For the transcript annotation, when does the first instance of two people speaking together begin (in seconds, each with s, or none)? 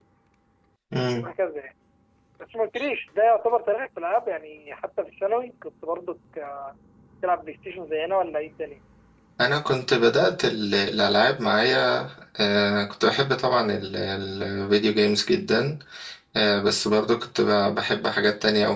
none